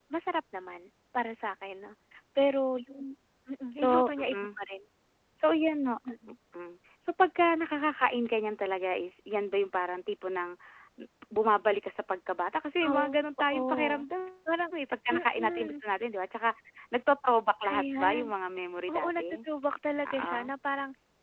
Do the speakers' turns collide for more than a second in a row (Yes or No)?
Yes